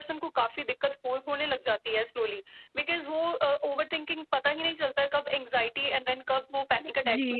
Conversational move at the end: taking over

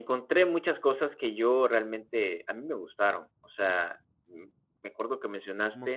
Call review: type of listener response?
taking over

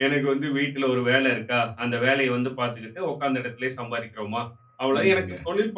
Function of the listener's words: listening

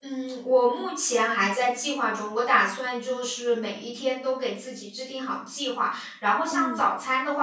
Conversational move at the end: listening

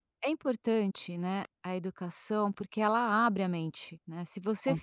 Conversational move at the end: listening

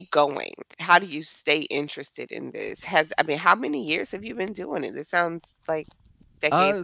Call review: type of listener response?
taking over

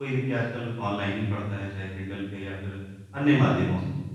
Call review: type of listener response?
listening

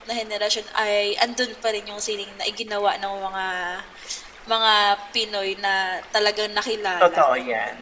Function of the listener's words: taking over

